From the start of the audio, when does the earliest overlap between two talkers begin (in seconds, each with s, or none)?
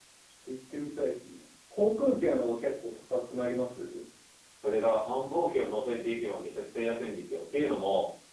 none